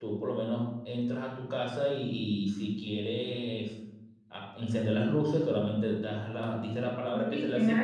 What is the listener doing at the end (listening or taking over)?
taking over